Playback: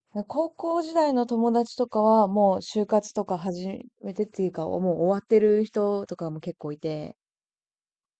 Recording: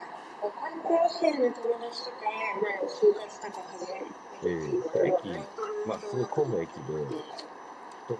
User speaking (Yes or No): Yes